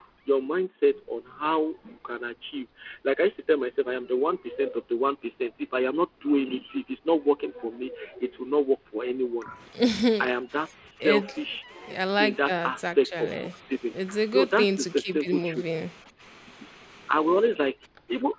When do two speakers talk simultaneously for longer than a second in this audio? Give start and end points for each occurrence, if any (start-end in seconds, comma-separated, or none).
12.2-13.5, 14.3-15.8